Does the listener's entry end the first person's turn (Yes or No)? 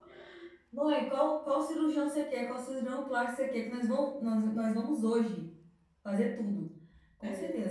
No